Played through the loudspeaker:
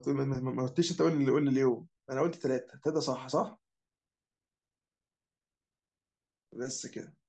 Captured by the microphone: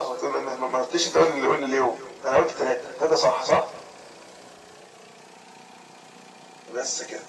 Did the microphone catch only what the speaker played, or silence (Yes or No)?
Yes